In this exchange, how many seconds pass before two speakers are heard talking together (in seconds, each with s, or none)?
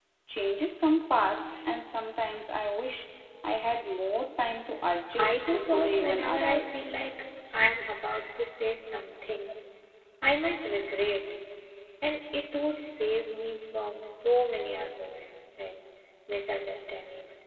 5.1 s